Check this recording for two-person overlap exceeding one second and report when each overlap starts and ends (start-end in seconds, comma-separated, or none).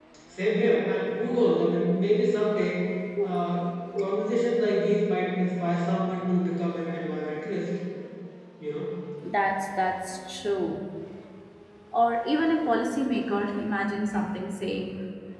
none